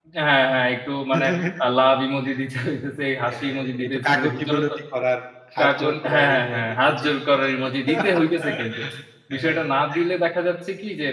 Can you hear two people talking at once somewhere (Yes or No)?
Yes